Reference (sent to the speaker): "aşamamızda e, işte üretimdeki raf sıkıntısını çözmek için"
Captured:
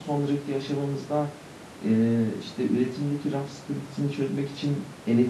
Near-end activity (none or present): none